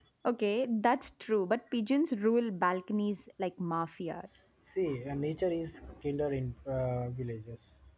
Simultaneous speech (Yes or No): No